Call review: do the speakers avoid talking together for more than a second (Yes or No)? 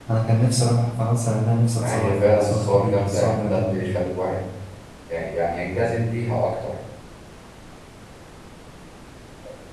No